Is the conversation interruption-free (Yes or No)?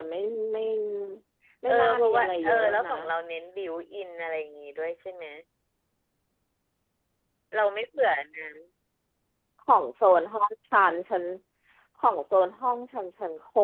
No